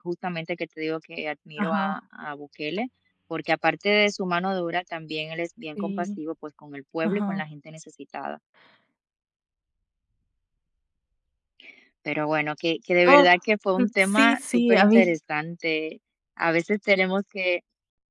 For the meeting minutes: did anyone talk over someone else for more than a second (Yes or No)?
Yes